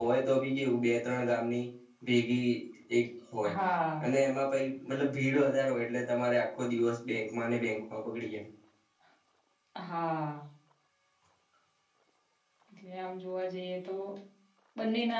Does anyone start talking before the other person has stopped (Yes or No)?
No